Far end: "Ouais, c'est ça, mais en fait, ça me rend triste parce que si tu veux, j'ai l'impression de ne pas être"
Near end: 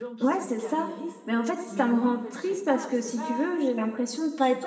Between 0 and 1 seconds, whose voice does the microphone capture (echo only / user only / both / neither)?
both